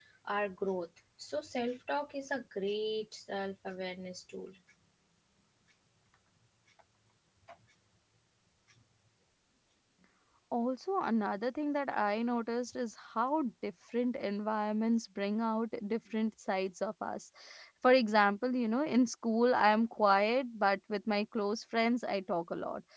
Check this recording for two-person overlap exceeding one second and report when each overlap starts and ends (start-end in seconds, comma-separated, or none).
none